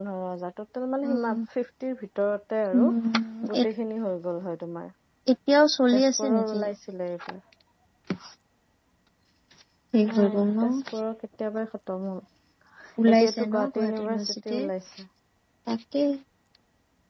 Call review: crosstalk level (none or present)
present